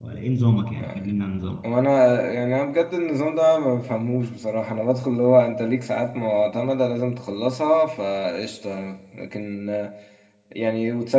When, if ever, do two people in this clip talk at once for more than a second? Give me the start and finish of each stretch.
none

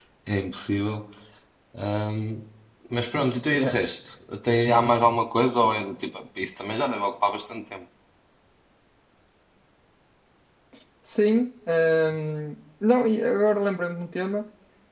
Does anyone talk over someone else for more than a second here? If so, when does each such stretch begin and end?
none

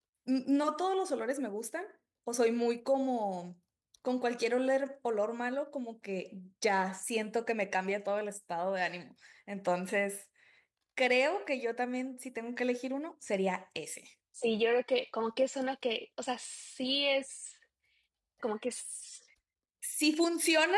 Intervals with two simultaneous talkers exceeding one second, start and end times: none

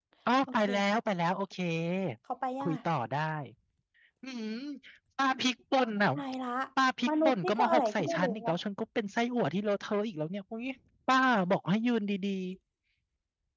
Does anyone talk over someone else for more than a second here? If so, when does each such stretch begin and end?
7.1-8.6

